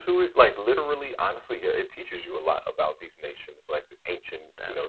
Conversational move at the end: listening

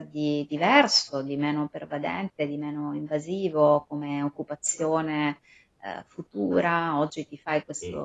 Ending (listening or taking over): listening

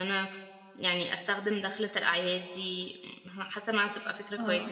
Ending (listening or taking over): taking over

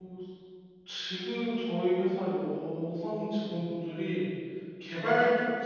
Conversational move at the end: listening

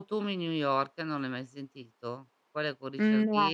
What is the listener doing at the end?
listening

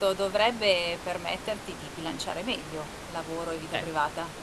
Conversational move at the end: taking over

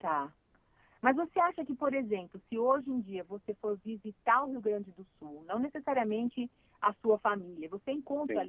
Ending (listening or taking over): listening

